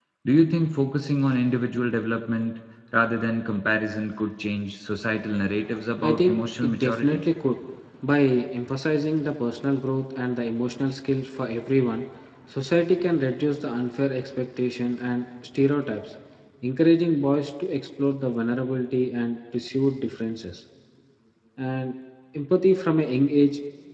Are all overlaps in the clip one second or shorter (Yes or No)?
No